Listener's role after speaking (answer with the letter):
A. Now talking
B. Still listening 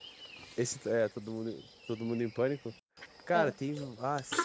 B